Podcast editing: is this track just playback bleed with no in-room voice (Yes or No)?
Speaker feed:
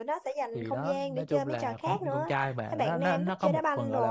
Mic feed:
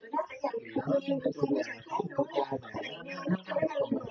Yes